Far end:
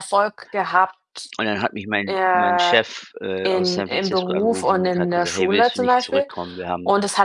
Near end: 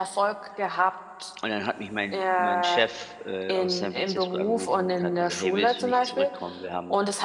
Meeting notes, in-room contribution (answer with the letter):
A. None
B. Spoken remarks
A